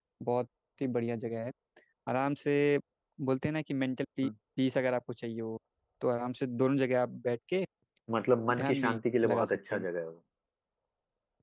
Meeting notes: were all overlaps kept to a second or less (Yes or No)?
No